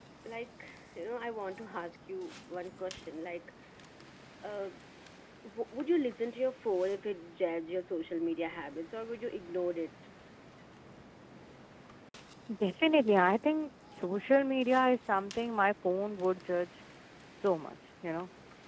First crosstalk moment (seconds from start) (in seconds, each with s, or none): none